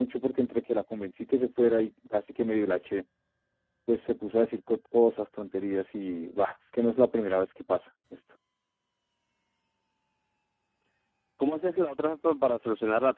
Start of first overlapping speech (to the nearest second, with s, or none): none